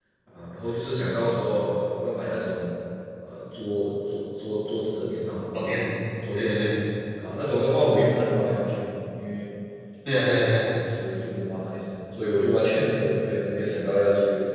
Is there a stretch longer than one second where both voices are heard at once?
No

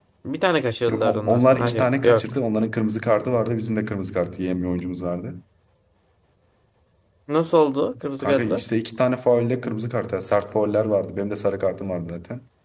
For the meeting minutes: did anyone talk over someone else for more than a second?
Yes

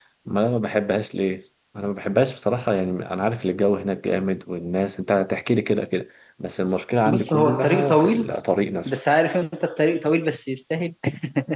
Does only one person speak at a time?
No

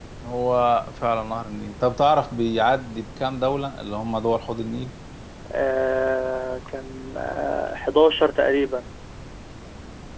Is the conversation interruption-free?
Yes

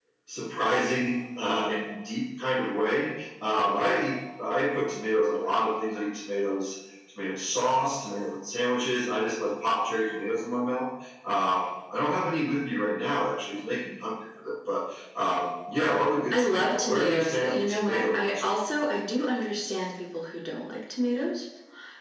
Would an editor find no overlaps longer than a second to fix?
No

